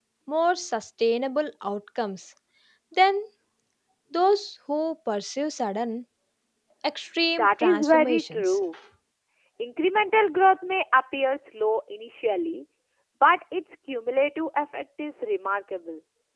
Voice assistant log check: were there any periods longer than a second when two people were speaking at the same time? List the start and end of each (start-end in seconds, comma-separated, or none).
7.3-8.6